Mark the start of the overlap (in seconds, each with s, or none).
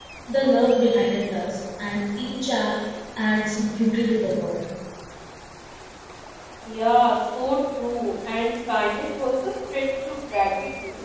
none